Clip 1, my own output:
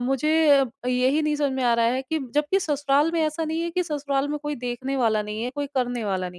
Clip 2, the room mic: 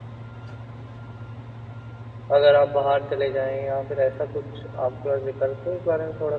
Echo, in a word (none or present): none